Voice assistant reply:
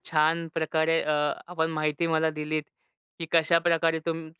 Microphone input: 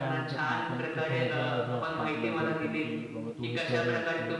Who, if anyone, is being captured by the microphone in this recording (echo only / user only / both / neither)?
both